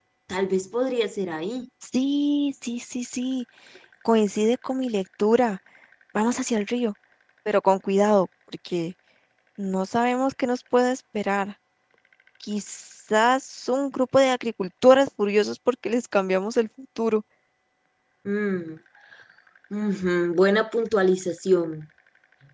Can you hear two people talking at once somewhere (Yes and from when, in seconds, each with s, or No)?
No